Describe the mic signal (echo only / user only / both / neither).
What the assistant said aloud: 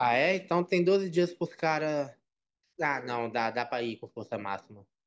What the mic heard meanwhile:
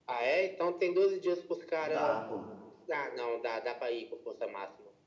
both